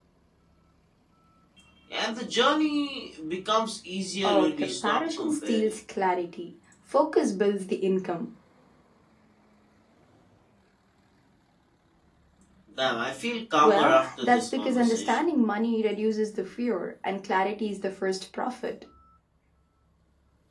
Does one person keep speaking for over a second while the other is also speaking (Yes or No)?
Yes